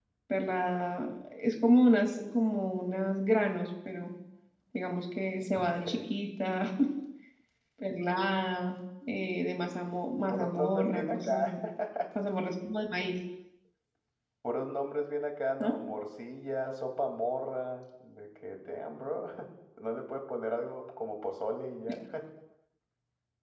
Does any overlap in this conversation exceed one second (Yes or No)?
Yes